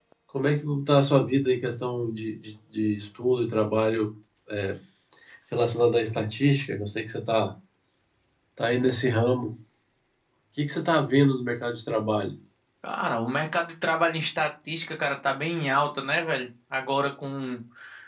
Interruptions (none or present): none